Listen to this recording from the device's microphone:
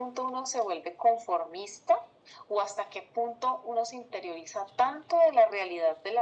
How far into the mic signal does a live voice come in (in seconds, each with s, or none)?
none